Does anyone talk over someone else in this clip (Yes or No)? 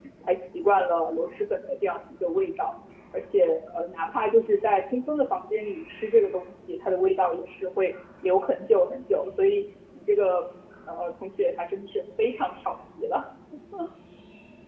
No